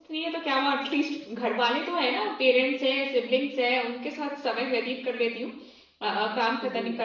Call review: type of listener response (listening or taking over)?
listening